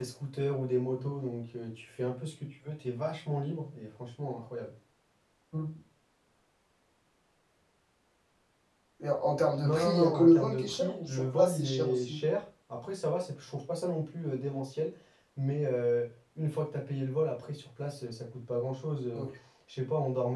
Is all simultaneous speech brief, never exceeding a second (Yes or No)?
No